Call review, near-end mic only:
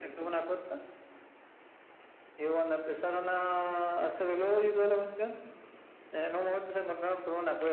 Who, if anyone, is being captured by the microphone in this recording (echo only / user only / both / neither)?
echo only